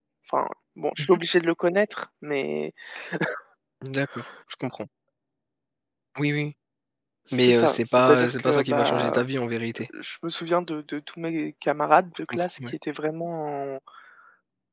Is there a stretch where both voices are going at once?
Yes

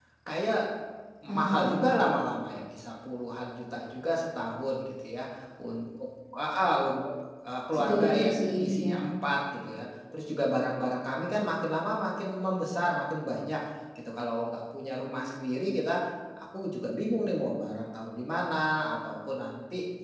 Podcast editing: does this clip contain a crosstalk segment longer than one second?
Yes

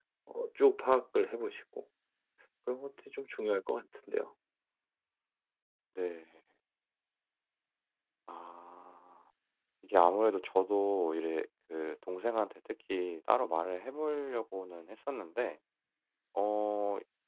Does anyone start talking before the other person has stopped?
No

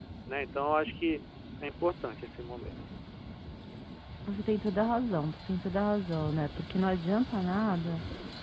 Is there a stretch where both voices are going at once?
No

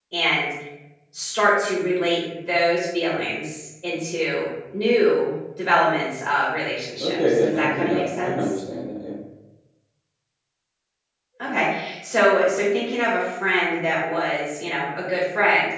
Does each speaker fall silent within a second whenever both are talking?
No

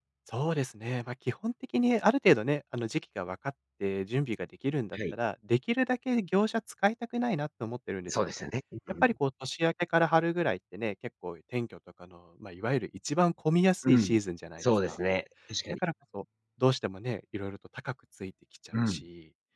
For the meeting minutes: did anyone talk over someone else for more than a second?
No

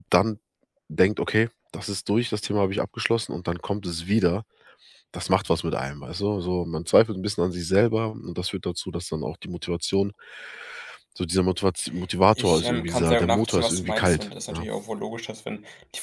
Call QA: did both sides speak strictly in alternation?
No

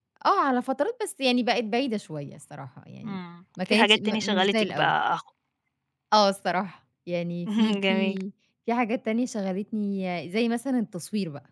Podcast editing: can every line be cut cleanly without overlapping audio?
No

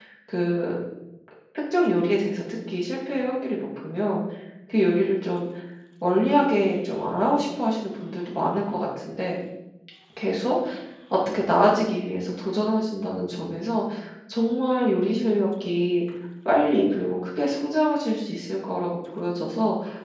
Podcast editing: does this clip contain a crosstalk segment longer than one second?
No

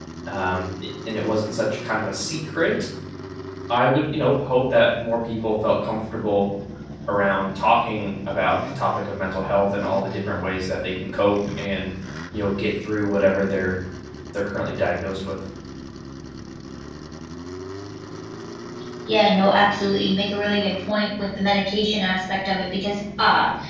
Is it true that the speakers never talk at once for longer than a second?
Yes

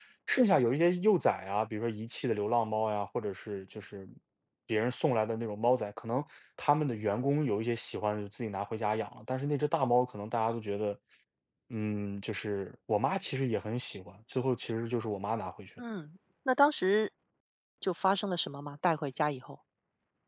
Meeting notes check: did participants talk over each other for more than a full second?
No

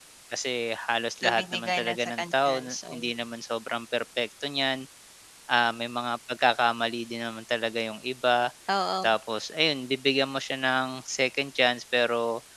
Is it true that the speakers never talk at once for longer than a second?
No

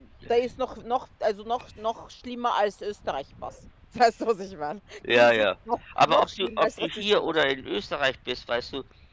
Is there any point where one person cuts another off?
Yes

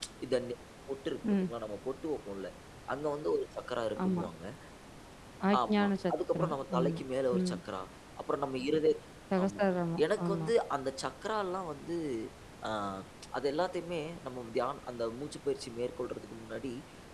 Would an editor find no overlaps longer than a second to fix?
No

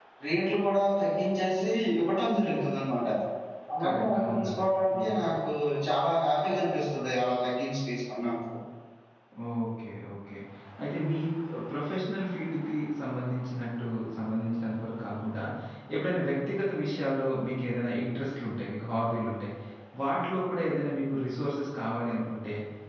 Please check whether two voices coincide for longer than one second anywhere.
Yes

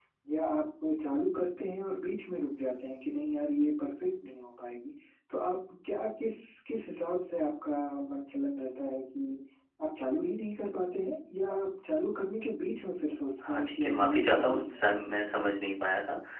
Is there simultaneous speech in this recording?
Yes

